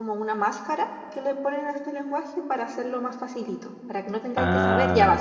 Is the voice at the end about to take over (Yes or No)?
Yes